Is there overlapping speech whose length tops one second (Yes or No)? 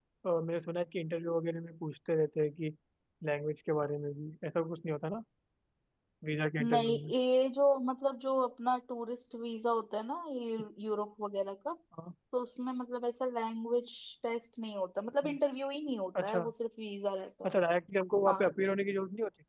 No